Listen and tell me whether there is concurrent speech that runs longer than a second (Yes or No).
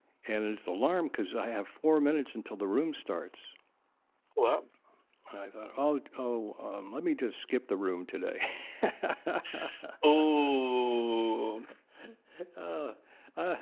No